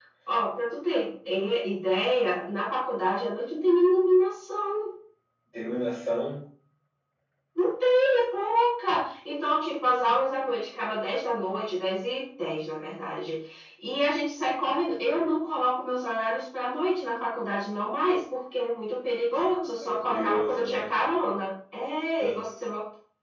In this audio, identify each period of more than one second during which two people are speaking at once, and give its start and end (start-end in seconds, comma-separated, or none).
19.8-21.0